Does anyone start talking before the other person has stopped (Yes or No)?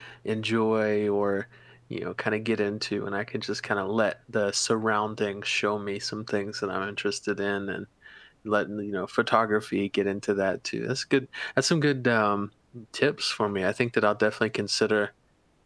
No